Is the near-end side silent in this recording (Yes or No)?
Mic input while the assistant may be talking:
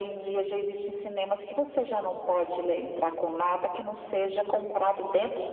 Yes